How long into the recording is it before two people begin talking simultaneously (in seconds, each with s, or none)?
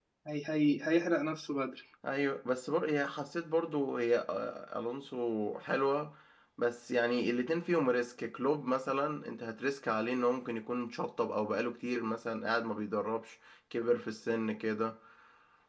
none